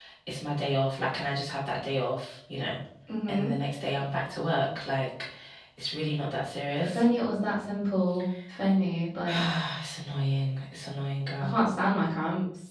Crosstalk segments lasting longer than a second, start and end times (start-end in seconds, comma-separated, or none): none